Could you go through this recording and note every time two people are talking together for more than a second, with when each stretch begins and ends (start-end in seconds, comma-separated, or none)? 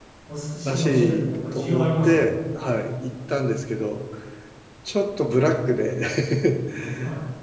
0.7-2.4